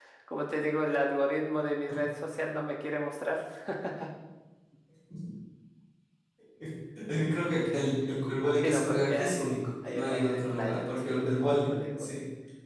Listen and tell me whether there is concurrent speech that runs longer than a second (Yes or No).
Yes